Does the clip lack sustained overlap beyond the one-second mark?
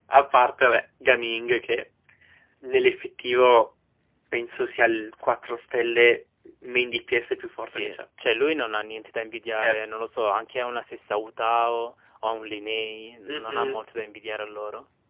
Yes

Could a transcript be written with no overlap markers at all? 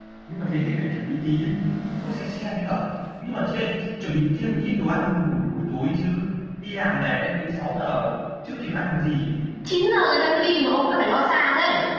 Yes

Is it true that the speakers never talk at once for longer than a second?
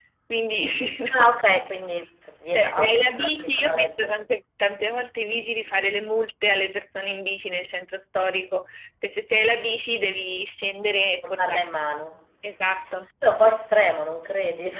No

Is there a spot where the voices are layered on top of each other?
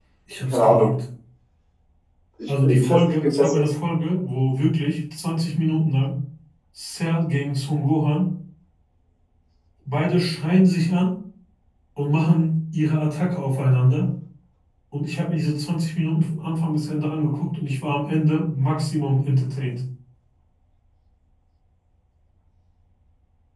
Yes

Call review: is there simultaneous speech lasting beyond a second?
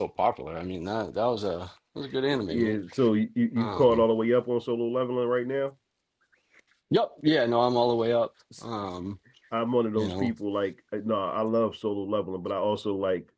No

